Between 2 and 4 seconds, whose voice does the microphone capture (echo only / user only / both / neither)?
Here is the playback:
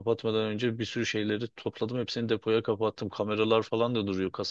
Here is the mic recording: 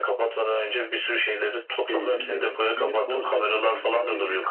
both